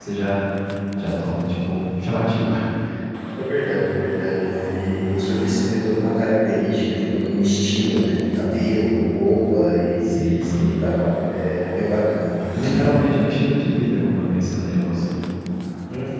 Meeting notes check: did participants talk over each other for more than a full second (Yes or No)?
No